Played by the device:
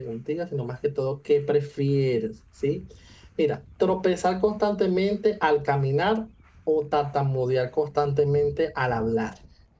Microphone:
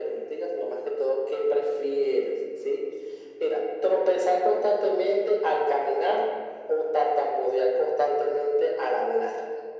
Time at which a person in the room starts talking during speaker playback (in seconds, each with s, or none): none